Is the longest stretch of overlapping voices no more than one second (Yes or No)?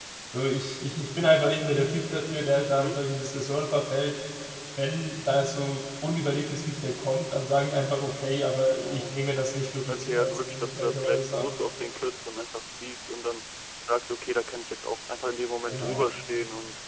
No